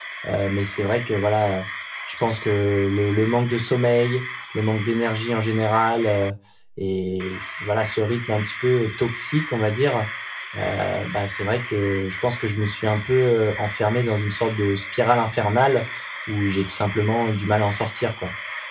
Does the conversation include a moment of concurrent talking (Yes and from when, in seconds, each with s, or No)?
No